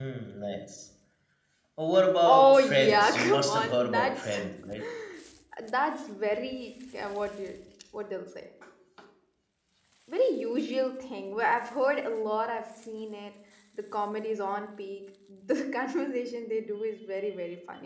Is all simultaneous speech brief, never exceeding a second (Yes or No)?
No